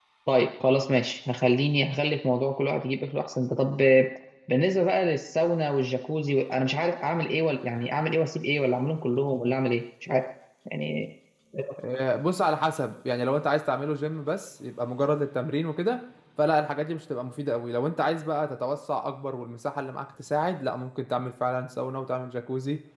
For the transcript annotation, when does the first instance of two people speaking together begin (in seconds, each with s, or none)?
none